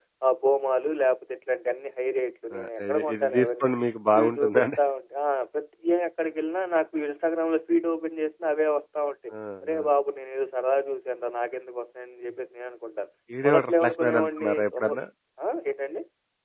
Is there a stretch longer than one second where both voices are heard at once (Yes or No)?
Yes